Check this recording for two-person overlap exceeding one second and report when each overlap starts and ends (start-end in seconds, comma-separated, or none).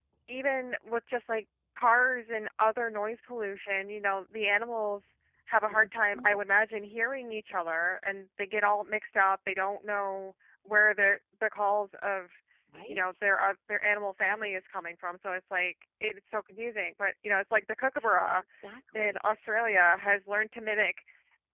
none